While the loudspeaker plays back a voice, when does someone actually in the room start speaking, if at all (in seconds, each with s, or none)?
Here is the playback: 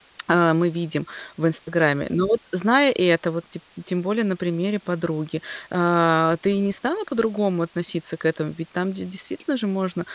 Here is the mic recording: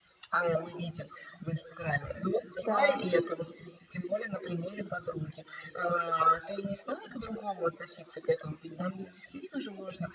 2.6 s